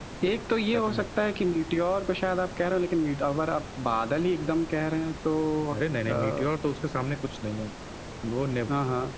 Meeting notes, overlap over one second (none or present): none